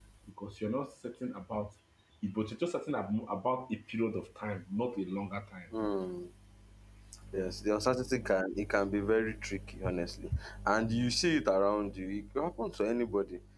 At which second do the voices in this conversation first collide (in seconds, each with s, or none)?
none